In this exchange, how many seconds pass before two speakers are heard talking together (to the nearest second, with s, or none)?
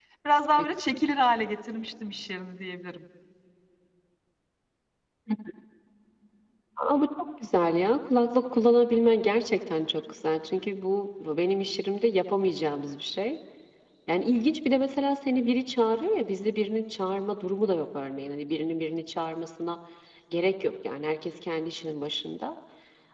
none